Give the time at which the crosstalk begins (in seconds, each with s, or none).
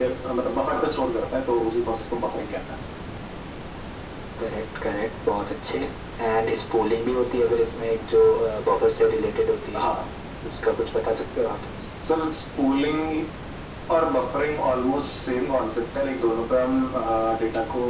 none